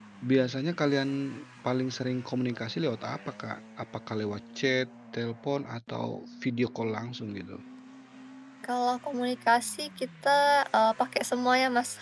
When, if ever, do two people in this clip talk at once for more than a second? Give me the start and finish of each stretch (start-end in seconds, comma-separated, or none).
none